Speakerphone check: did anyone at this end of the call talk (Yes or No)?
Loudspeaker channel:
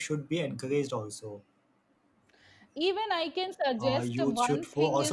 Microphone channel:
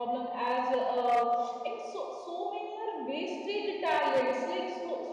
Yes